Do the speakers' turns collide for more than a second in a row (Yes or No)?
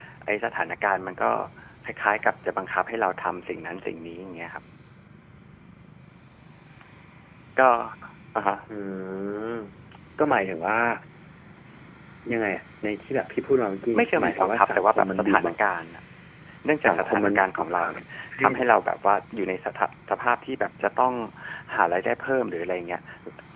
Yes